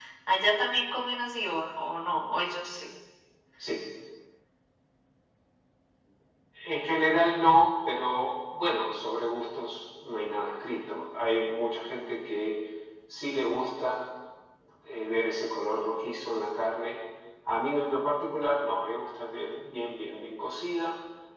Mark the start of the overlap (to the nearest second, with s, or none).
none